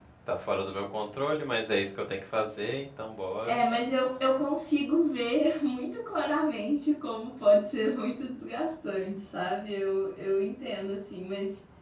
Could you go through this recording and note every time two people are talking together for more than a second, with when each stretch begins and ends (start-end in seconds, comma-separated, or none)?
none